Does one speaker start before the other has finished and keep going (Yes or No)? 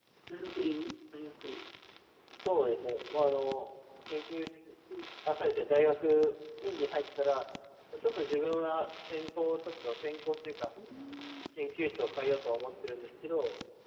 No